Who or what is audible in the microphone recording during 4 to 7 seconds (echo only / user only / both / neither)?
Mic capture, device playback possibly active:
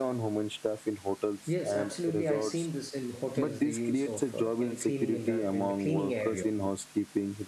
both